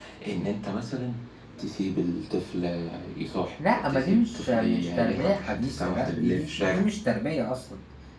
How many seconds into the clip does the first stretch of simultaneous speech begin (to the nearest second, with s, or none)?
4 s